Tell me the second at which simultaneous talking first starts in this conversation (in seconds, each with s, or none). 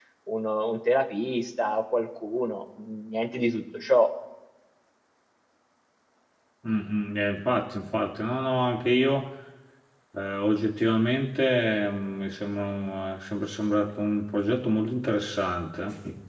none